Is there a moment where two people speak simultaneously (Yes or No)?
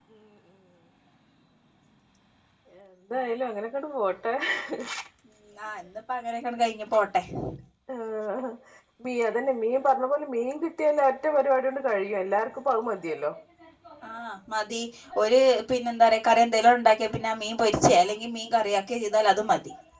No